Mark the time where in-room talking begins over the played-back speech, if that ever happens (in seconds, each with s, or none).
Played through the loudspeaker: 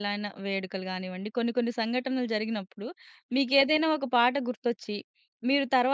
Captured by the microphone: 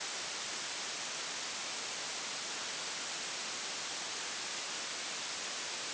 none